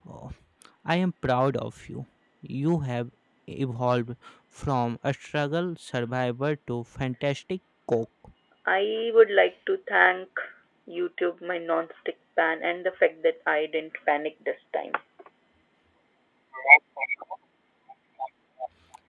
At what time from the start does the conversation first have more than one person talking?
none

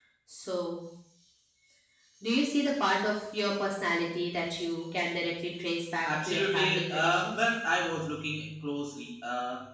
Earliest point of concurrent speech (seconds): 6 s

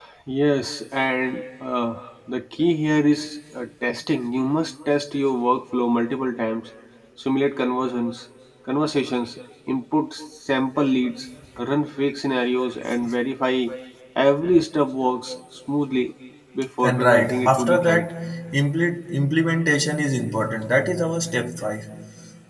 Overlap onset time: 17 s

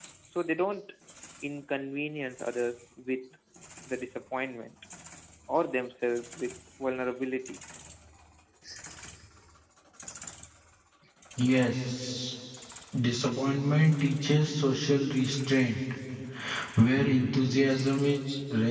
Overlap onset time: none

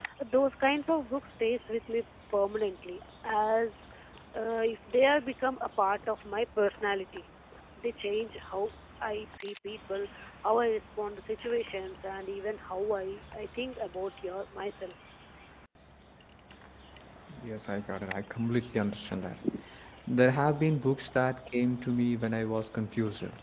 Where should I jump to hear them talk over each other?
none

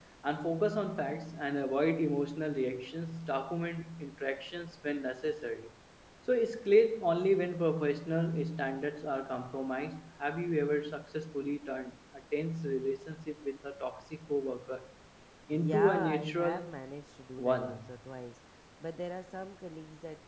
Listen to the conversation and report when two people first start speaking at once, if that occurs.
16 s

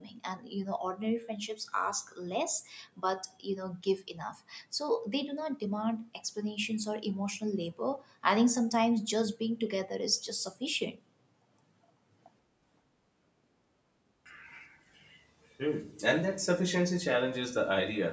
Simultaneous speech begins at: none

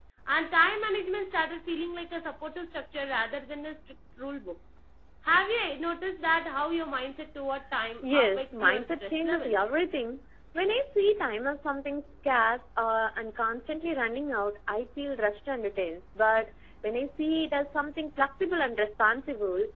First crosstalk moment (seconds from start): 8 s

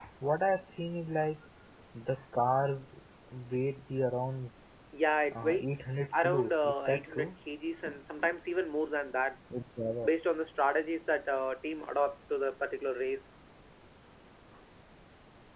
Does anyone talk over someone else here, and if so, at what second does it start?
5 s

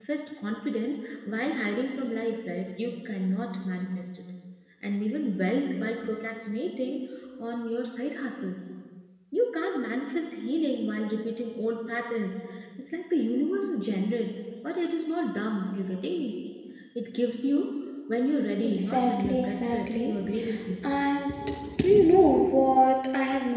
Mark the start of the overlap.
19 s

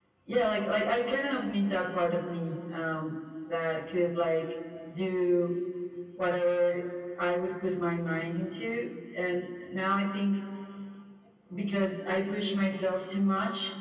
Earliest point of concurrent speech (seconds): none

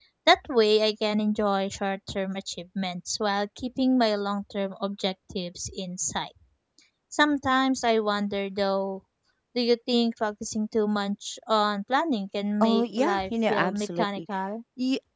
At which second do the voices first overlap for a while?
13 s

